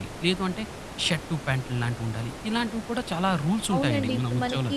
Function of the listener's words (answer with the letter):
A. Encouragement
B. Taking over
B